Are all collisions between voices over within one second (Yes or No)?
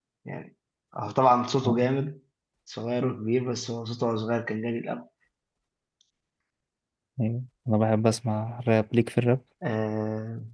Yes